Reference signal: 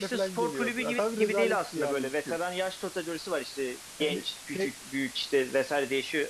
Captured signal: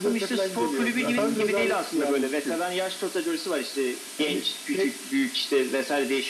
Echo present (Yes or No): Yes